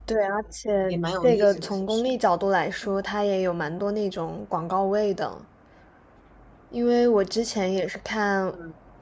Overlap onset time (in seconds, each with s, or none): 0.9 s